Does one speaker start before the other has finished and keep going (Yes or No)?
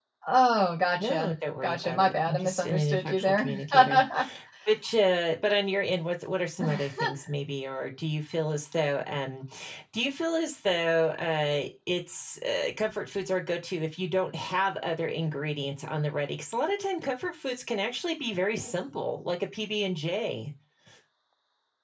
Yes